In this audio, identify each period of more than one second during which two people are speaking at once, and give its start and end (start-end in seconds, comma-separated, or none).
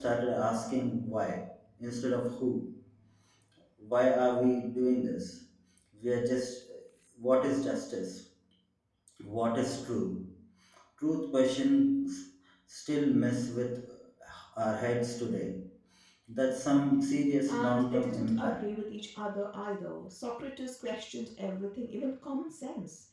17.5-18.8